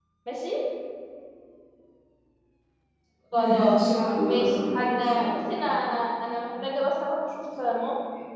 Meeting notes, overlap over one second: present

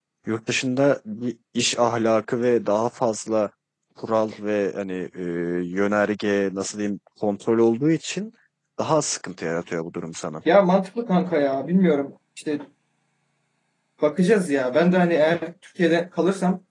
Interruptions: none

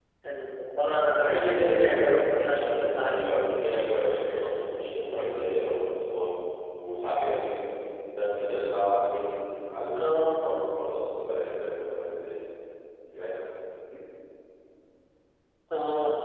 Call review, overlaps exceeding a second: present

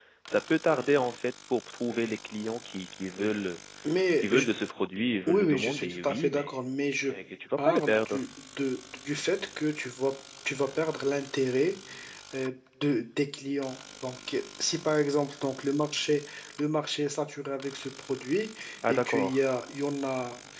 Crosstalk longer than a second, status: present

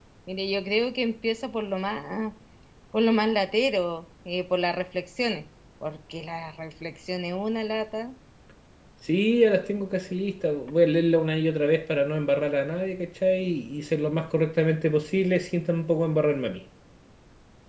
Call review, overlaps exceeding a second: none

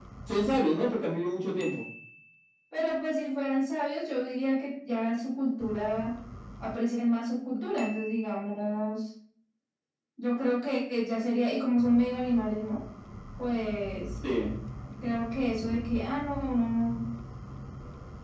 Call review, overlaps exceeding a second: none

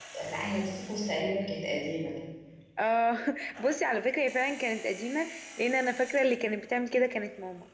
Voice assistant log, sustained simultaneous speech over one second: none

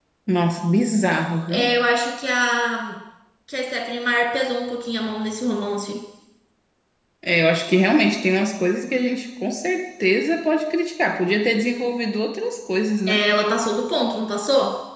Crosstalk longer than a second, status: none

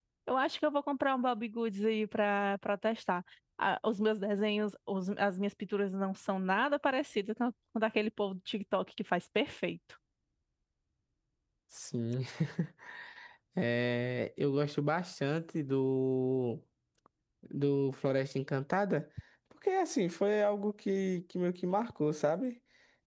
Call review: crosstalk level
none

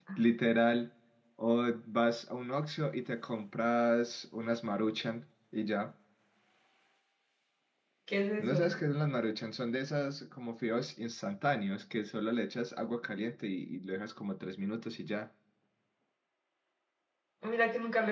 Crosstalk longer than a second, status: none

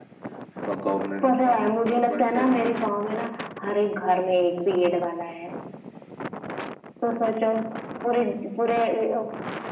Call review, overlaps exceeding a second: present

